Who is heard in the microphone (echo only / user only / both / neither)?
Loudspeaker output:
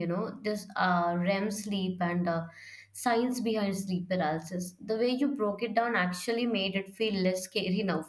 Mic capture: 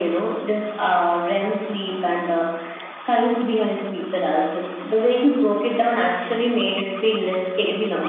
echo only